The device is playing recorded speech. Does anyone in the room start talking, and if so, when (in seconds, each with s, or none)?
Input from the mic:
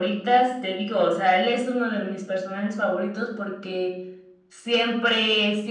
none